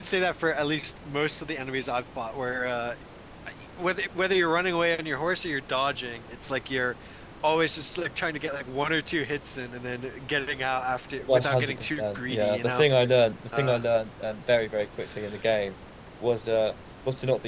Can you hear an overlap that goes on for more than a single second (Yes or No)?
Yes